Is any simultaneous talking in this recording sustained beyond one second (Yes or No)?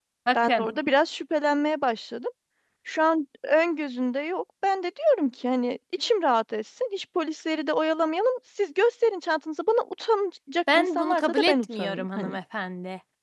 Yes